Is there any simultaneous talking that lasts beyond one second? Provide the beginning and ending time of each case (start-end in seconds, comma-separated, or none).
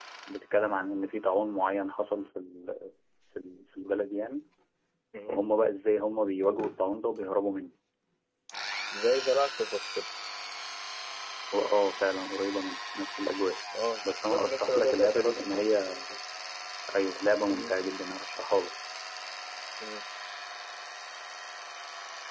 14.1-15.7